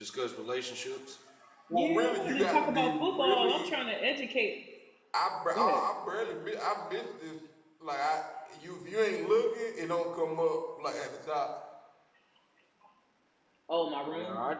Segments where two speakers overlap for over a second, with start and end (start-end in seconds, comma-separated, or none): 1.7-3.7